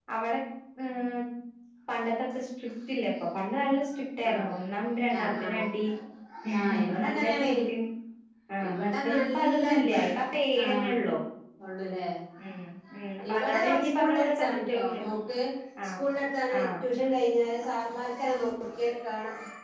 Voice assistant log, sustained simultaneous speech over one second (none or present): present